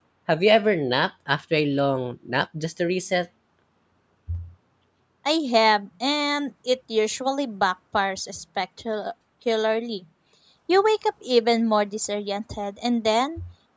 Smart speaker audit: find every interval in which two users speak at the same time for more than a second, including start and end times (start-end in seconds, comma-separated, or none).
none